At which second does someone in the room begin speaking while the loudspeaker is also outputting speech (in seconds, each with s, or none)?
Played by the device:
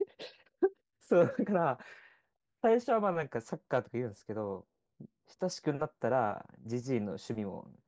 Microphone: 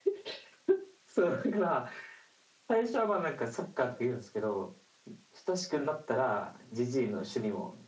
none